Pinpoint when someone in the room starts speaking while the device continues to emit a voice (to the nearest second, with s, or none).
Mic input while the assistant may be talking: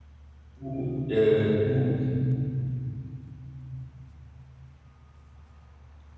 1 s